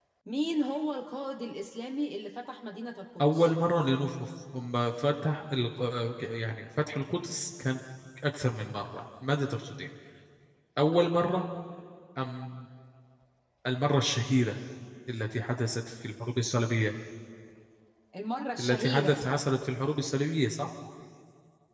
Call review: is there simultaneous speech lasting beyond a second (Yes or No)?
No